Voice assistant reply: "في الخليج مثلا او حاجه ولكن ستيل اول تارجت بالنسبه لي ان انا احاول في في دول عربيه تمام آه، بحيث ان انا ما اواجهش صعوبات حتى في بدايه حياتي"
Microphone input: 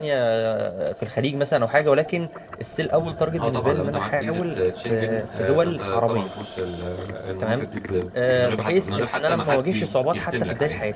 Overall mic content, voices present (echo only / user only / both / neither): both